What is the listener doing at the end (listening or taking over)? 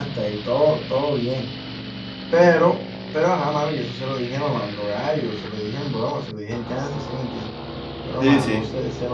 listening